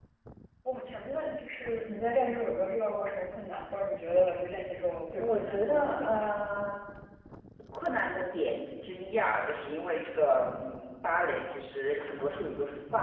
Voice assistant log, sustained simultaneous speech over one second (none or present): present